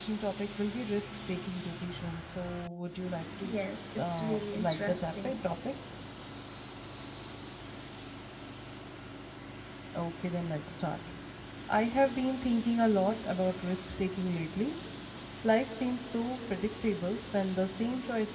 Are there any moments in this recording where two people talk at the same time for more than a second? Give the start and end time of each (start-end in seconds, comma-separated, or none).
4.0-5.4